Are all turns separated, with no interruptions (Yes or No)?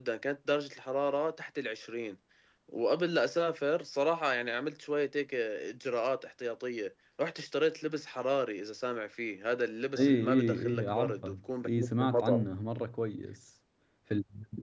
No